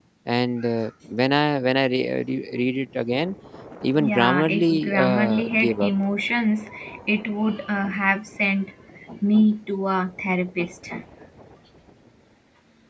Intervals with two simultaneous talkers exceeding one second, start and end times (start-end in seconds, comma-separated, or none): 4.0-5.9